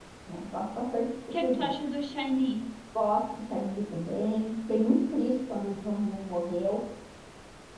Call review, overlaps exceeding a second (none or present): none